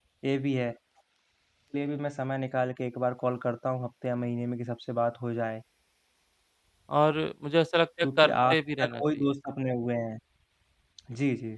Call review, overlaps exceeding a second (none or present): present